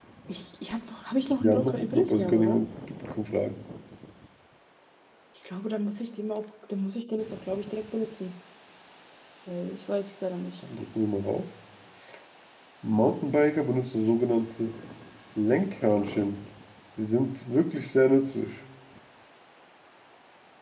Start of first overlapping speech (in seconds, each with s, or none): 1.3 s